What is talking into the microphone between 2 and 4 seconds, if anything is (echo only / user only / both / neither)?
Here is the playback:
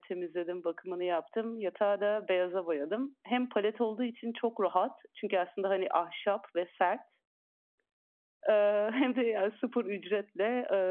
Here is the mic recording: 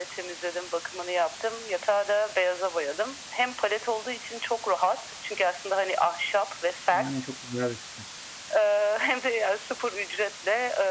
echo only